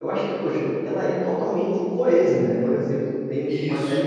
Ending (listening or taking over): listening